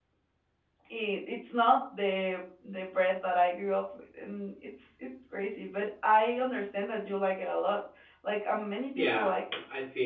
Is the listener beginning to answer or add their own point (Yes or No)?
Yes